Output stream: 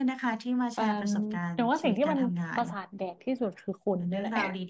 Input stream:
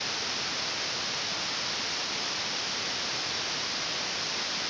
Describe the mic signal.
neither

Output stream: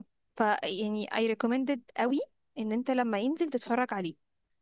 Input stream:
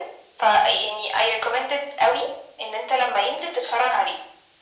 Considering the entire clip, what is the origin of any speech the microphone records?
echo only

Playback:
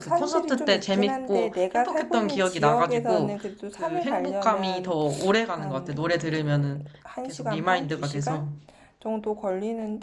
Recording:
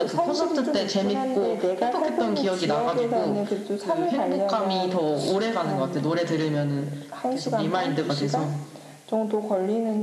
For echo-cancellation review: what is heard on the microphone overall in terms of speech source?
echo only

